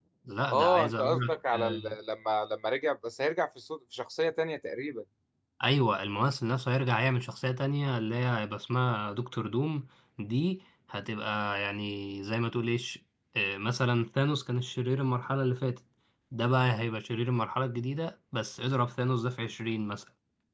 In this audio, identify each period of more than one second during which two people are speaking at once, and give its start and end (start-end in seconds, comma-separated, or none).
0.5-1.9